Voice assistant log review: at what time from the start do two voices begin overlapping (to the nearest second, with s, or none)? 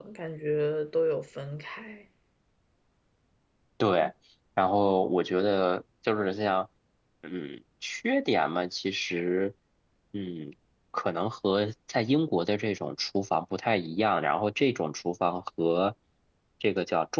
none